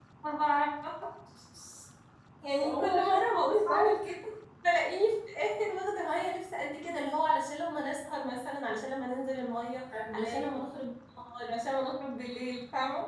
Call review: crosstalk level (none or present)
present